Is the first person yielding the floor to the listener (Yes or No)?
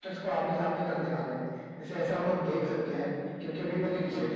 No